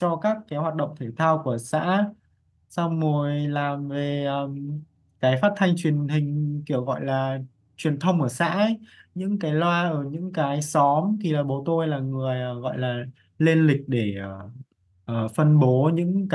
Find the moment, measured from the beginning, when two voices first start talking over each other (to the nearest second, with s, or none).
none